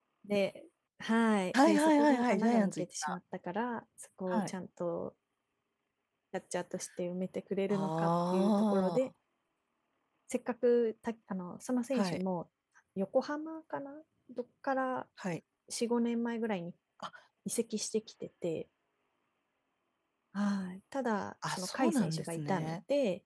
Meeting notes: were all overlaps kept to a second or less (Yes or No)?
No